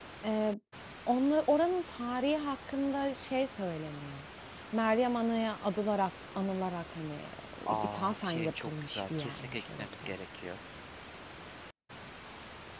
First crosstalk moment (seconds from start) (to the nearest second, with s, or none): 8 s